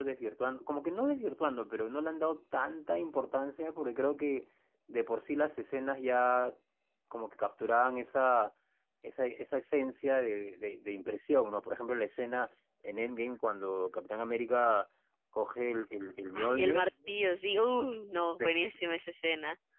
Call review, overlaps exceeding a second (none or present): none